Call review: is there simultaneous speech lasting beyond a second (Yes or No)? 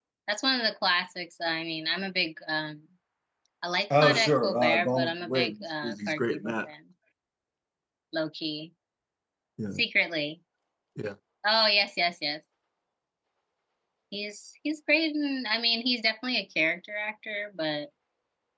Yes